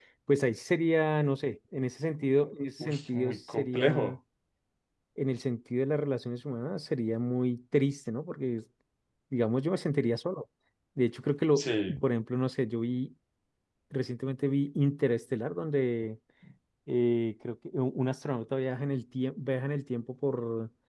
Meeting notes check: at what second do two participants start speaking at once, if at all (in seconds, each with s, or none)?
2.8 s